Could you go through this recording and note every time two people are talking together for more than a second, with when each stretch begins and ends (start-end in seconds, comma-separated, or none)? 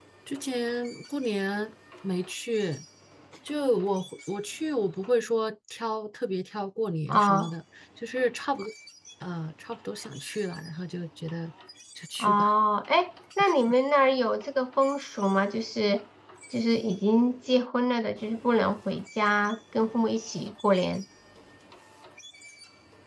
none